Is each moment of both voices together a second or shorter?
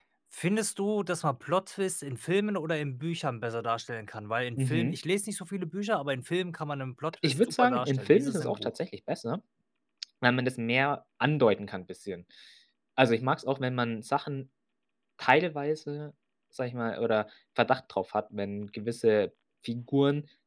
No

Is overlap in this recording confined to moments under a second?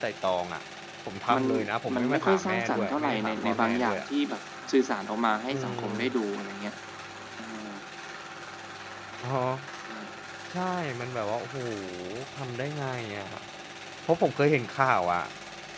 No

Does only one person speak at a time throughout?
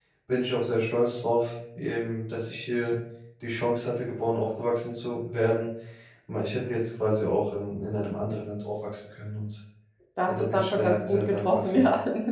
No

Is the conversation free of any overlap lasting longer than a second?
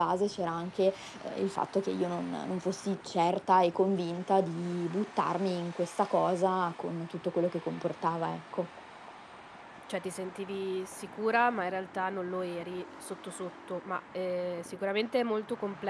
Yes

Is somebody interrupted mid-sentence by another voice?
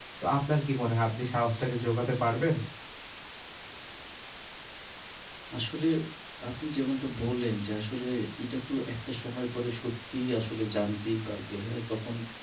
No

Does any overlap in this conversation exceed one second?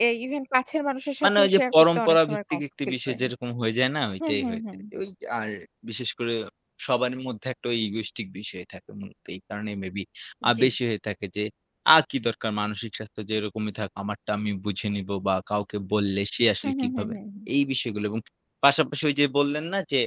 Yes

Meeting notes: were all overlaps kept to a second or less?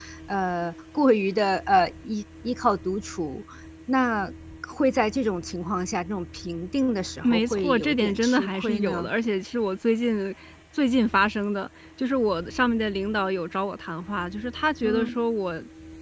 No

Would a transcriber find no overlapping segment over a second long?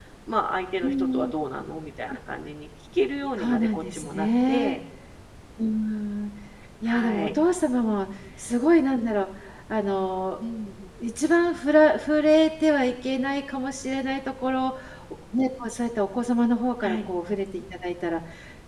No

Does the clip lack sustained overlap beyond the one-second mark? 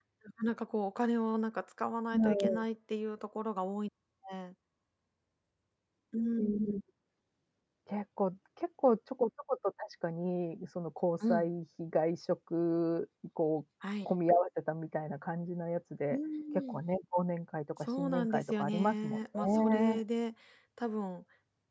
No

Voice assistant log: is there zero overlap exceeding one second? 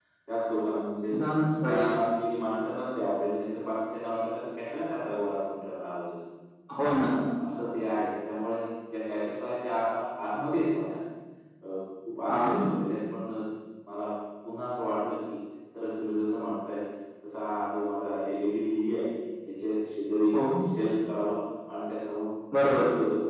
Yes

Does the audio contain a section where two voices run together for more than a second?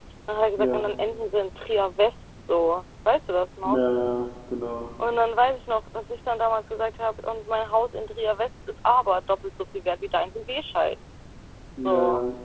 No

